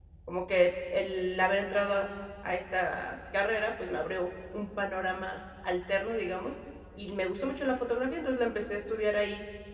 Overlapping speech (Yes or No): No